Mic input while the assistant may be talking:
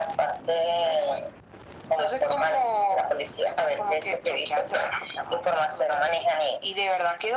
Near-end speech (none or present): none